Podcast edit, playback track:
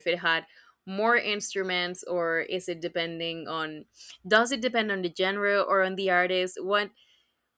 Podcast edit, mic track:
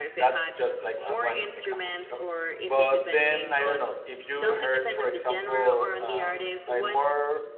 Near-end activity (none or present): present